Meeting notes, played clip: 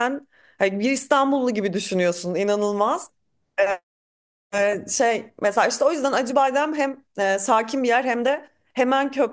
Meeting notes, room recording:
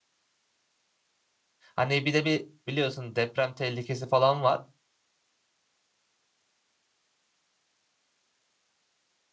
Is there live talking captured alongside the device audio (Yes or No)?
Yes